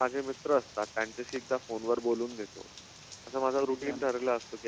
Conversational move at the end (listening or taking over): listening